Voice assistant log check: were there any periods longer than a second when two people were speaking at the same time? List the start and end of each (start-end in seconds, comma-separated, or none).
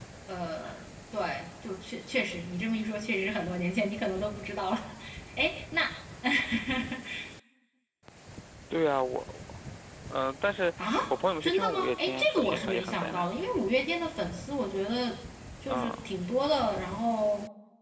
11.4-13.3